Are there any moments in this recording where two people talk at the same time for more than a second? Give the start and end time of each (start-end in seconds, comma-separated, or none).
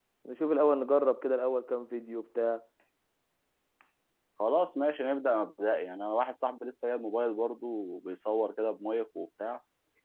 none